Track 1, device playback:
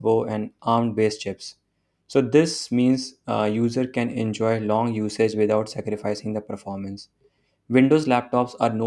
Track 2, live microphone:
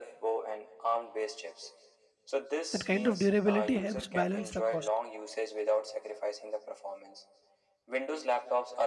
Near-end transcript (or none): That kind of durability helps balance the cost.